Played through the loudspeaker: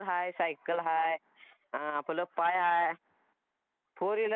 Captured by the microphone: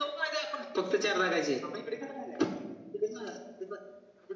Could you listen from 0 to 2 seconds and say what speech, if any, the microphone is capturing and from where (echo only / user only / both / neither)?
user only